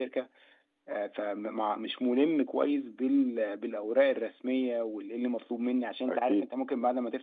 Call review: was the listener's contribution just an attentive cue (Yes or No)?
Yes